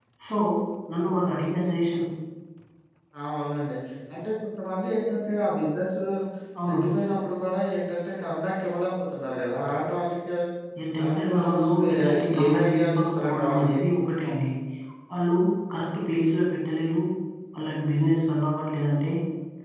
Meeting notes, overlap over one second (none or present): present